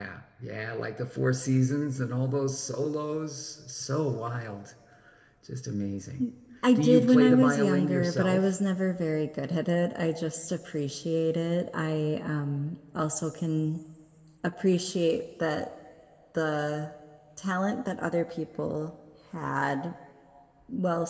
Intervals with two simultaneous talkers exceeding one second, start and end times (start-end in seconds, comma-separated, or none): 6.8-8.5